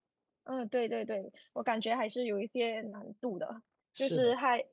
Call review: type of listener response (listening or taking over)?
listening